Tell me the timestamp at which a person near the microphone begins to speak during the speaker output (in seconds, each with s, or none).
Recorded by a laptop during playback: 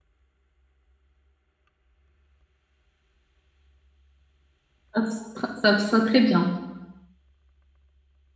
4.9 s